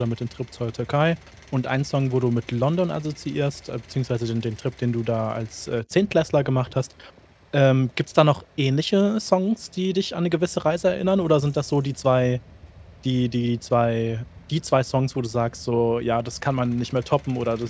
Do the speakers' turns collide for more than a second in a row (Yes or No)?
No